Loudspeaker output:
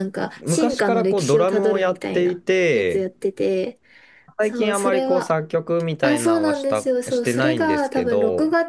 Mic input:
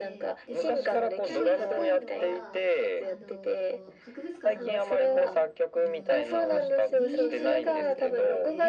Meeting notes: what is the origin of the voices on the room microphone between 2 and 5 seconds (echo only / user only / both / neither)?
both